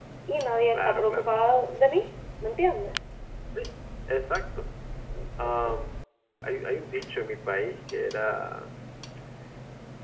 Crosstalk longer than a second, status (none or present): none